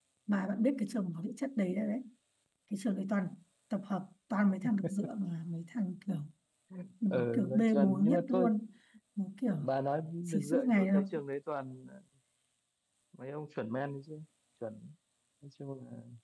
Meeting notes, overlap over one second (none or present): present